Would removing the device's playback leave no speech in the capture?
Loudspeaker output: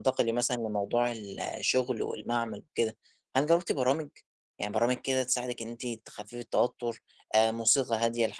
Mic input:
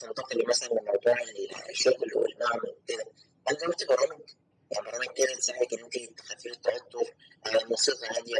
Yes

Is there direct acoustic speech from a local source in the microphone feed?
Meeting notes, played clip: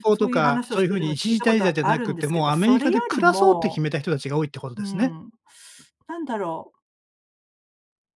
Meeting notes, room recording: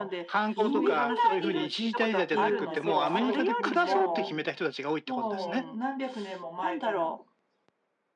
Yes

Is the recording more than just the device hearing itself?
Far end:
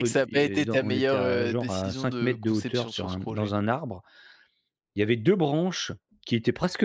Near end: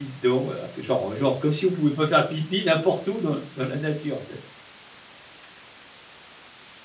Yes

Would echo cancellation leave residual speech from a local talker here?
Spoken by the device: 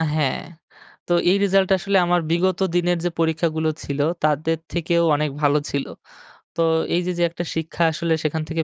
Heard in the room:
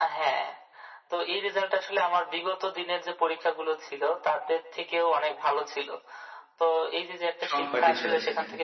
Yes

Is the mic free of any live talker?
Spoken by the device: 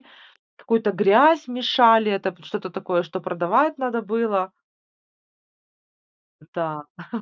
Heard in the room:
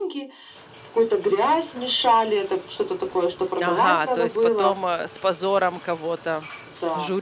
No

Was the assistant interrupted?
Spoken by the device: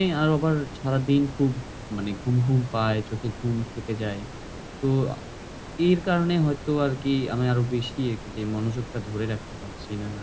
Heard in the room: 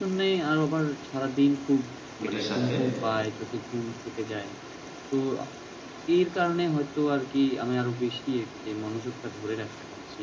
Yes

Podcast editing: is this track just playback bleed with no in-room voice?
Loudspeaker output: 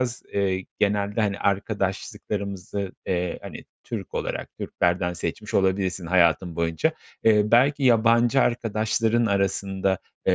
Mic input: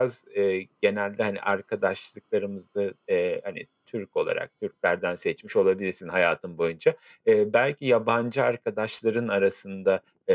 Yes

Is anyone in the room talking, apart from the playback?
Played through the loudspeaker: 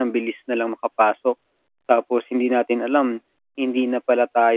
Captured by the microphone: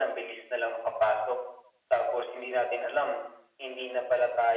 No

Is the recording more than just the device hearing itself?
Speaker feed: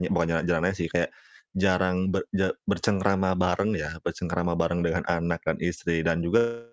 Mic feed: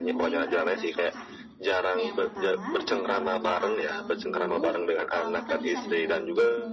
Yes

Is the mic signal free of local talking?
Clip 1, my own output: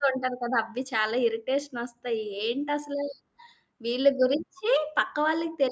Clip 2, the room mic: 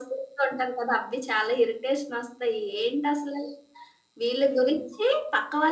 No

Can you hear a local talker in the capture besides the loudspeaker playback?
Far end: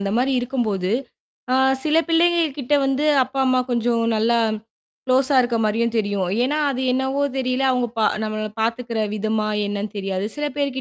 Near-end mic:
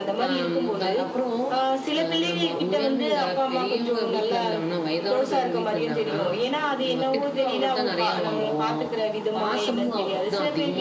Yes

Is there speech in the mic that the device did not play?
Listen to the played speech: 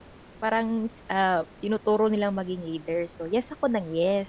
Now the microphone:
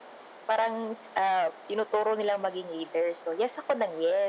No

